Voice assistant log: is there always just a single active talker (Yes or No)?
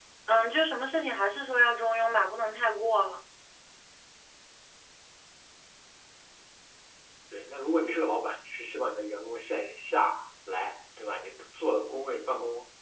Yes